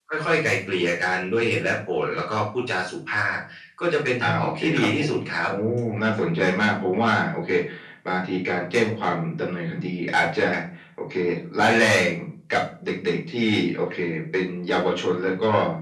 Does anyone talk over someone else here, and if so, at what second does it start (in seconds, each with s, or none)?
4.3 s